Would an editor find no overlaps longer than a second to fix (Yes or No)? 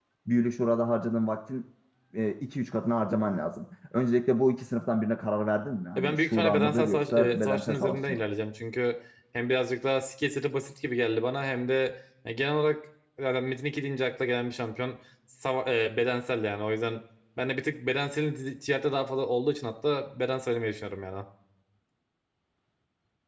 No